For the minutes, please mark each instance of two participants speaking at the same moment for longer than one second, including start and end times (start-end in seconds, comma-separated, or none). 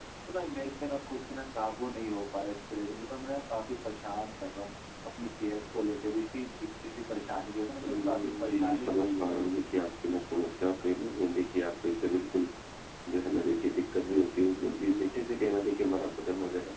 7.8-9.7